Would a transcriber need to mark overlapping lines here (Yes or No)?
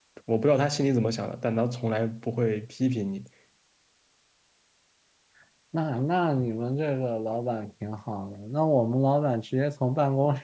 No